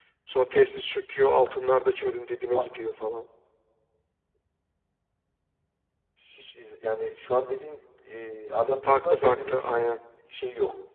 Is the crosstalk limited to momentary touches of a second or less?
No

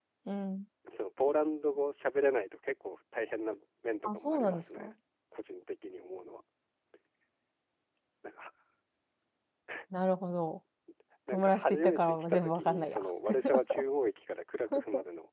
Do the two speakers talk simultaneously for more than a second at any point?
Yes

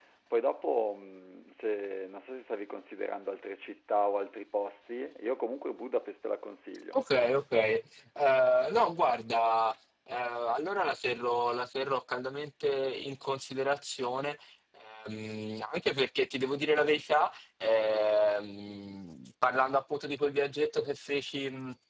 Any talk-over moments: No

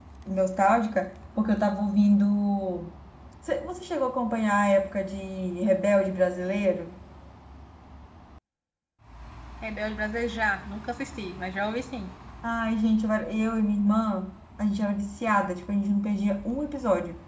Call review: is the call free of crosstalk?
Yes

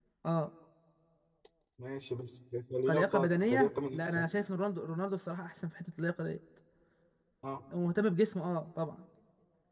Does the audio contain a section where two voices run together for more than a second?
Yes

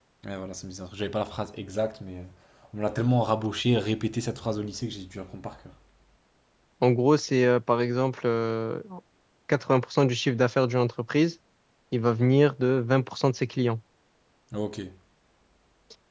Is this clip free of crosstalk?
Yes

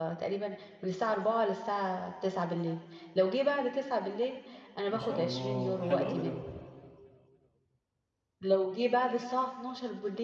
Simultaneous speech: Yes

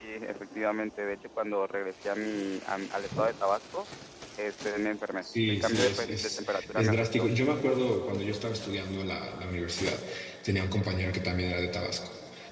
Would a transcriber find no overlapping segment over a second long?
No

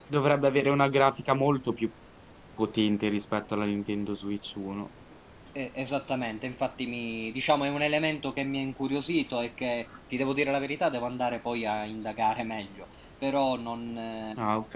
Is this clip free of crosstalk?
Yes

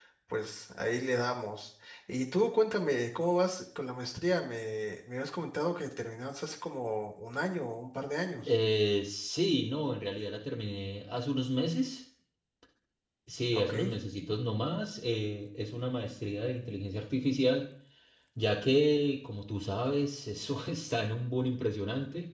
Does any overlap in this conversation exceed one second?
No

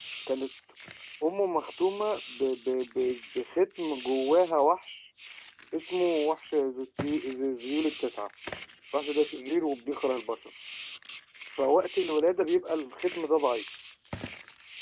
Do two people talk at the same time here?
No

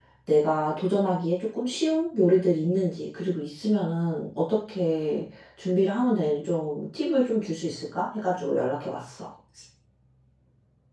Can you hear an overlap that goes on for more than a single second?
No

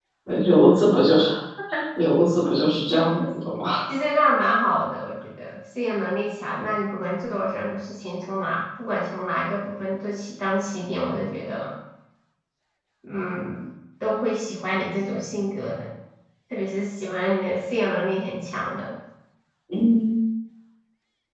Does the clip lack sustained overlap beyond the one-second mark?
Yes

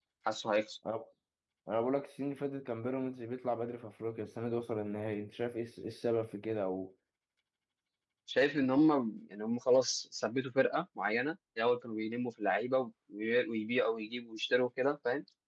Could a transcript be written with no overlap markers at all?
Yes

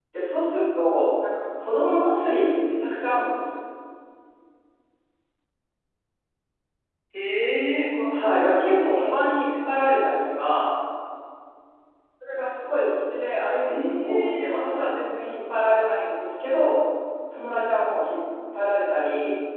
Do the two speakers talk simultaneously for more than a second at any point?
Yes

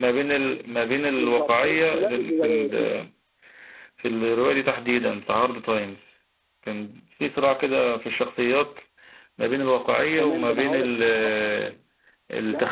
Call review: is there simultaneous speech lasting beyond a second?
Yes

